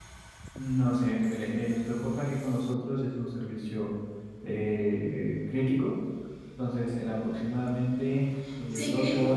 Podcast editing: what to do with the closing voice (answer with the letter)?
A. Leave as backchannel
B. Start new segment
B